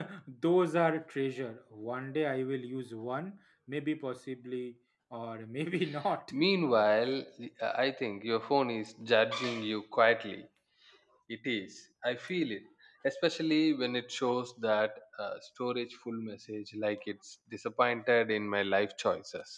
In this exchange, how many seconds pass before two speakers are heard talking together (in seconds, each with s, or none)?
none